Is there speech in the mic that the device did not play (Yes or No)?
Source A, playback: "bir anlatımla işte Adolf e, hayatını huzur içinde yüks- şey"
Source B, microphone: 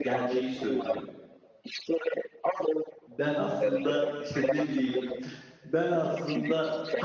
Yes